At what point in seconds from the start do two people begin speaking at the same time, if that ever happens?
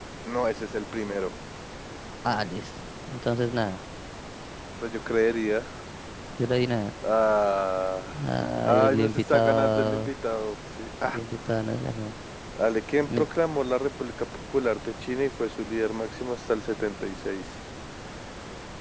9 s

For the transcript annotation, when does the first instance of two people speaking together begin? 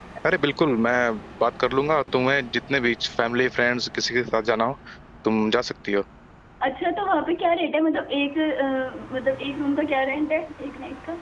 none

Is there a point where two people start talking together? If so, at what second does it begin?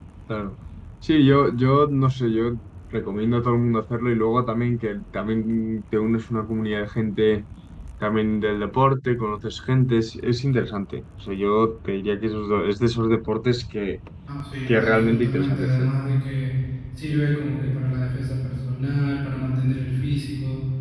15 s

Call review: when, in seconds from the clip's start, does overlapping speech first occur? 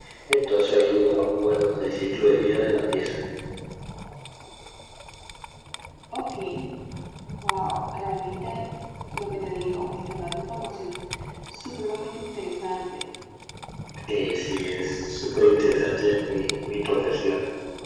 none

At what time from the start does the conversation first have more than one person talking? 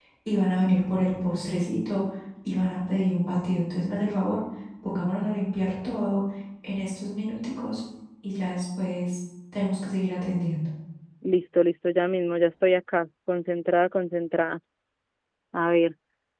none

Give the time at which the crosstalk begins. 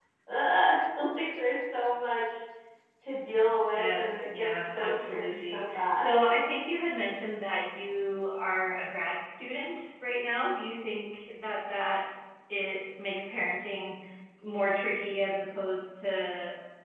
4 s

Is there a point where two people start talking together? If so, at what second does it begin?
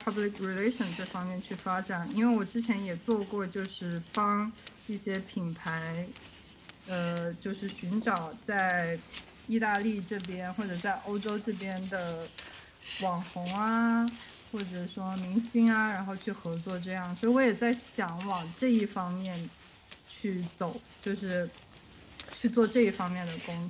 none

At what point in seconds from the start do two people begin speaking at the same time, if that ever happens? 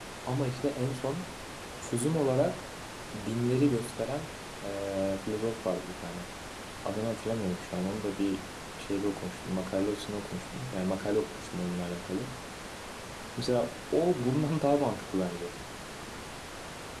none

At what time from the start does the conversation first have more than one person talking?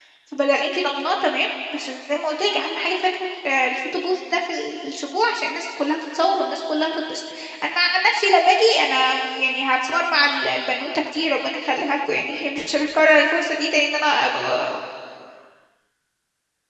none

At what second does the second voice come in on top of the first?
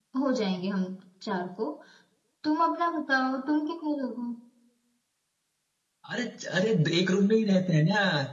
none

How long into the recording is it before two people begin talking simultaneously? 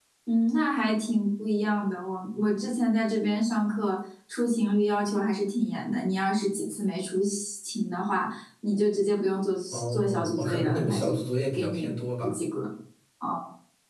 10 s

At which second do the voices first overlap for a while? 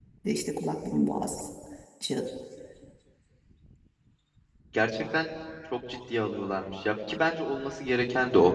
none

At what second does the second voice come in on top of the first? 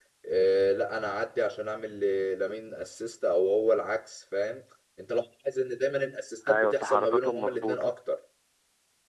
6 s

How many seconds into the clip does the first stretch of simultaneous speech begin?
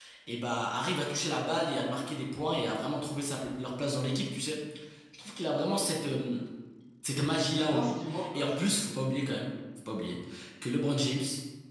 7 s

